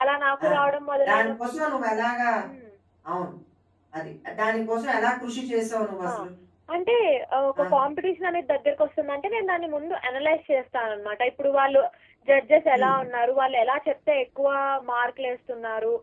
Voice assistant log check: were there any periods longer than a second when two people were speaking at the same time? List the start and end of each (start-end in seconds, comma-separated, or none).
none